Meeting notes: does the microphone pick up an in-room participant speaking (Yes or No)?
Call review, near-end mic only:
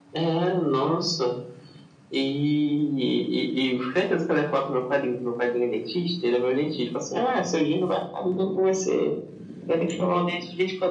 No